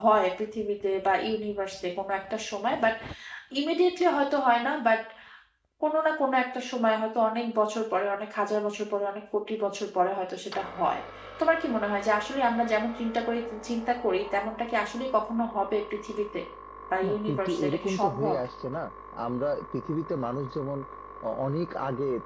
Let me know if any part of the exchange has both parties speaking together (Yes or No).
Yes